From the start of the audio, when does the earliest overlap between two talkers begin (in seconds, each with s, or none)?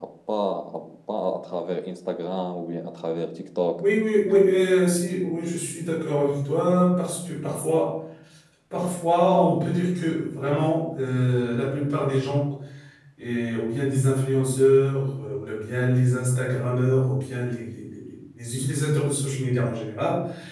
none